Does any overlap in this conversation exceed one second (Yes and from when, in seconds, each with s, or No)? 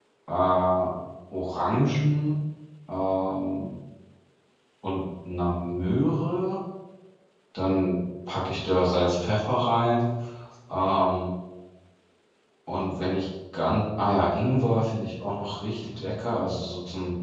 No